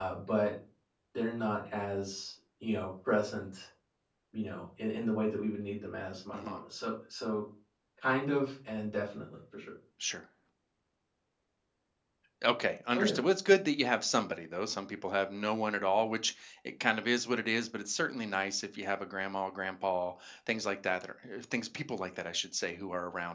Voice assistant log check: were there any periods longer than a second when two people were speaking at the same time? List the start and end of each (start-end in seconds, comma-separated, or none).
none